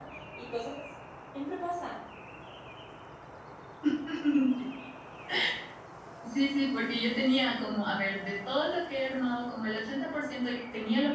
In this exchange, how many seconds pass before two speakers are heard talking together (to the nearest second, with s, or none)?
none